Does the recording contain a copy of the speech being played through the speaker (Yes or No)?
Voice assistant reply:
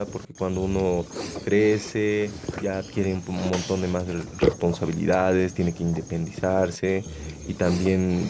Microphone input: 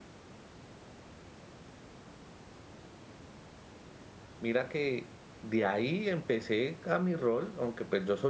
No